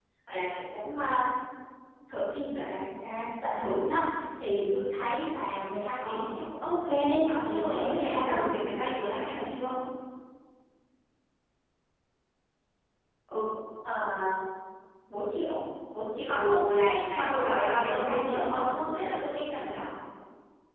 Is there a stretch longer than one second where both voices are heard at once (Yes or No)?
Yes